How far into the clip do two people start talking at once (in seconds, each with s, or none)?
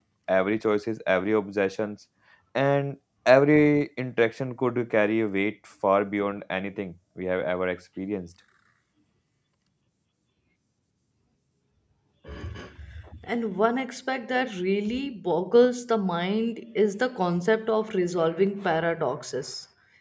none